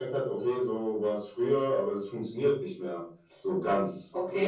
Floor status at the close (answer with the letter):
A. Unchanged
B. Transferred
B